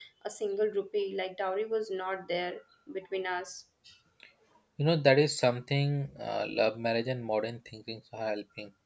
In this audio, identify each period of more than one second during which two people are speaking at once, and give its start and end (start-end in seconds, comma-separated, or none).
none